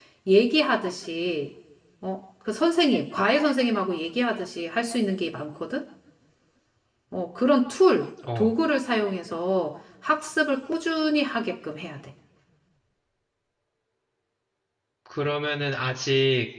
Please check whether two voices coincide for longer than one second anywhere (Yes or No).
No